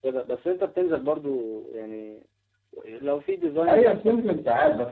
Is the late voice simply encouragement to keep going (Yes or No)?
No